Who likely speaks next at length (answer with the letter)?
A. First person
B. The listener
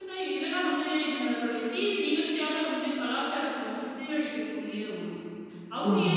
B